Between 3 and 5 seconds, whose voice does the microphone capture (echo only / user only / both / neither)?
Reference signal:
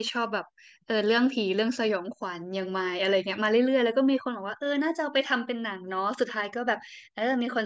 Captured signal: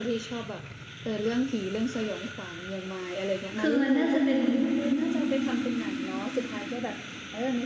both